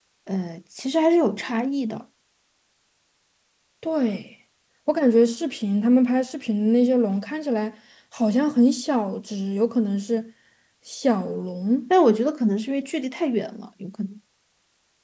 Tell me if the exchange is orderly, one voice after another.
Yes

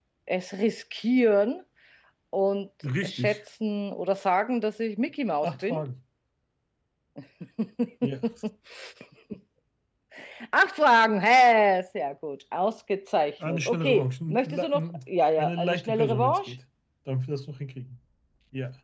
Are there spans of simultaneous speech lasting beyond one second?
Yes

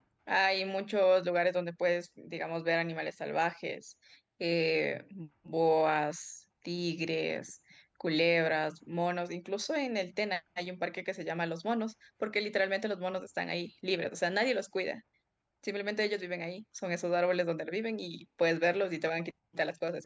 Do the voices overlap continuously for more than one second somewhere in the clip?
No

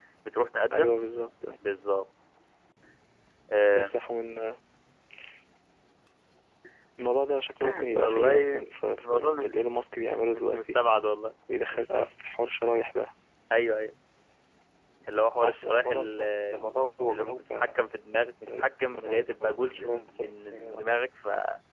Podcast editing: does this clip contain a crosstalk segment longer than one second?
Yes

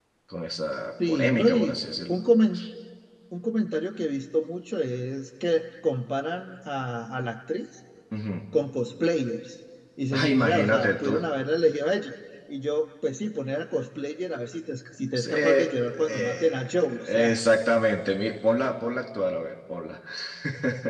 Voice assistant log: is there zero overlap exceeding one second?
No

